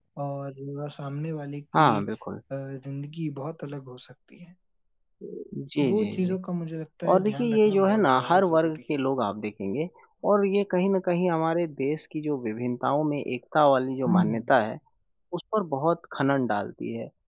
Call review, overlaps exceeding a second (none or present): present